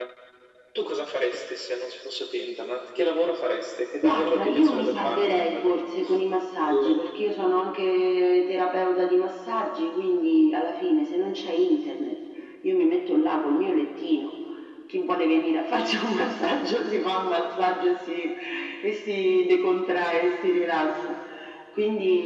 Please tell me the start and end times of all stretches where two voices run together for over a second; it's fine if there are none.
4.0-5.8

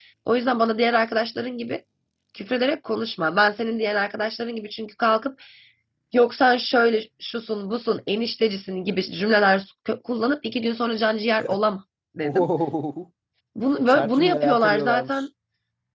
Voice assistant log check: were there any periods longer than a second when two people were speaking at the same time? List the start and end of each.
13.9-15.2

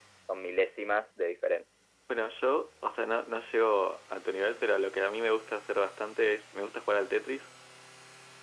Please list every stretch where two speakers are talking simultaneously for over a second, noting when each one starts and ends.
none

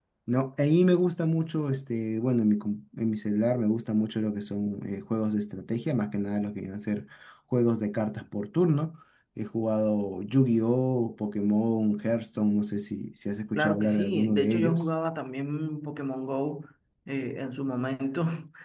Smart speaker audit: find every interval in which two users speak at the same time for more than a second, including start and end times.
13.6-14.8

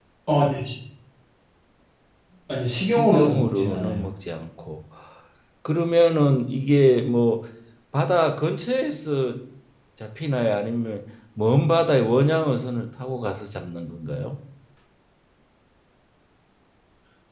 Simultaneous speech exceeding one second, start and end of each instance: 2.7-4.0

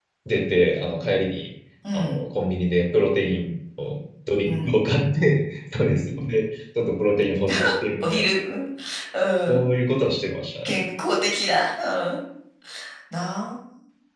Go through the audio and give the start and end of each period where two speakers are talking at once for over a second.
none

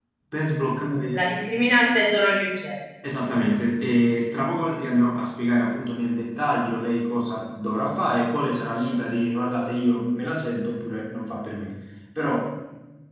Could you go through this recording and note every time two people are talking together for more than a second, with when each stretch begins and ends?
none

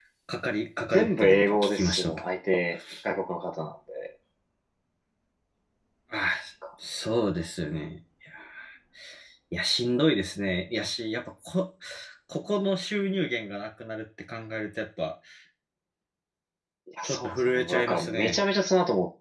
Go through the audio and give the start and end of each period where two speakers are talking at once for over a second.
0.9-2.2, 17.0-18.4

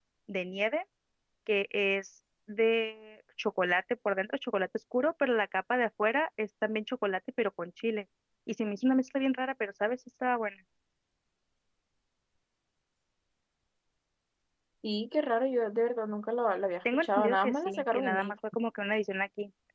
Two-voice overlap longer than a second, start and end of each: 16.9-18.3

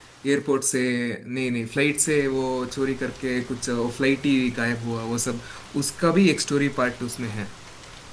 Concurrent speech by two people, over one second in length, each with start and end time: none

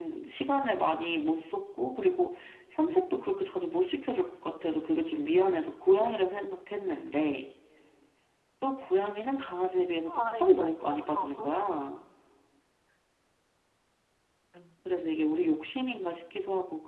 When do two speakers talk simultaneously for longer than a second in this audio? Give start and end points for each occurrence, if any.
10.1-11.5

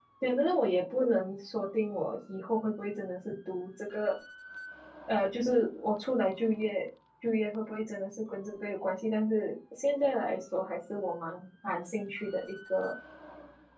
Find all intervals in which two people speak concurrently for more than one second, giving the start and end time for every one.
none

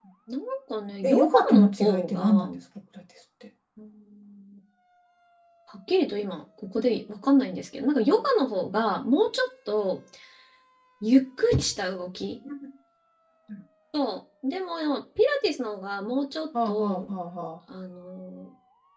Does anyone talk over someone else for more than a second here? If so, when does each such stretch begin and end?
1.0-2.5

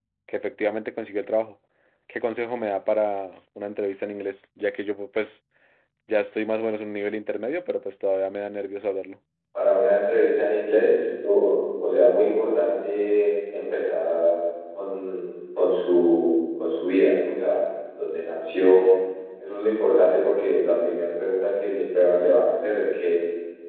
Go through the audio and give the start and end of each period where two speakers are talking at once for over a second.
none

